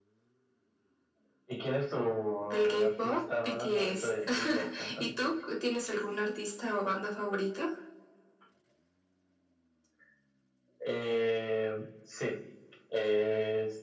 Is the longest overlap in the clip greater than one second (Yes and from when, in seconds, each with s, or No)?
Yes, from 2.5 s